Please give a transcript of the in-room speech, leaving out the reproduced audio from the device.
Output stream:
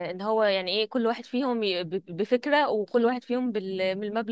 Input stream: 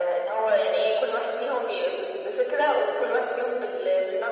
none

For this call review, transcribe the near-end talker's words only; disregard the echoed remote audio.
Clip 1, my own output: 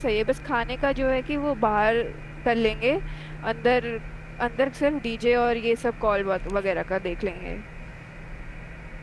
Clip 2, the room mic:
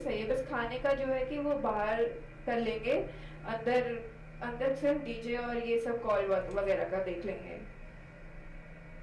none

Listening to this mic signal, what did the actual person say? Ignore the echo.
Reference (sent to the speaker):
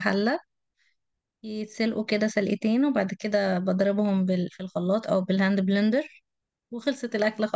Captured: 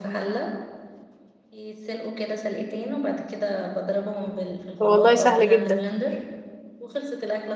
والله سهلة جدا

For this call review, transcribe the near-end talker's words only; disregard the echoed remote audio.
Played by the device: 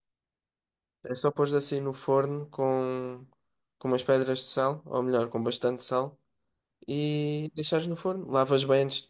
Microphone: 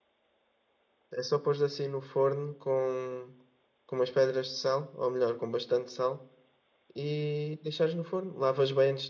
none

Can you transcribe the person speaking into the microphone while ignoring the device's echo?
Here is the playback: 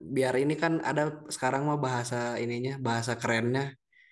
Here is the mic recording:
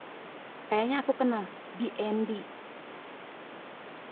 Kayaknya aku kenal. BND.

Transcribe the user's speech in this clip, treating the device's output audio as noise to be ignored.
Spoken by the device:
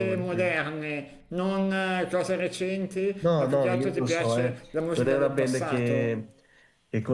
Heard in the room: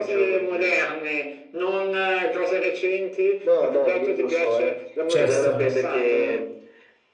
Chester.

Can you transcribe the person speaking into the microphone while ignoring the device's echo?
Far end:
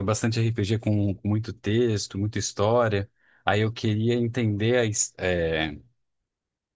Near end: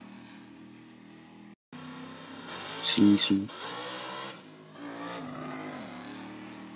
Sim, sim.

